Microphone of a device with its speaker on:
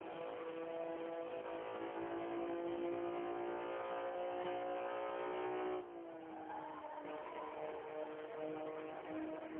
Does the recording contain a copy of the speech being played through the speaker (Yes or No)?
No